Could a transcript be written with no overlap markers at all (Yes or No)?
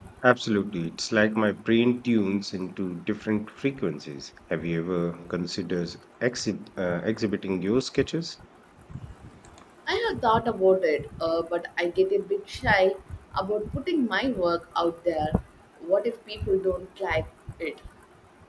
Yes